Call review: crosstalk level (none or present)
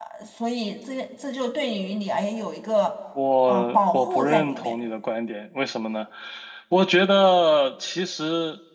present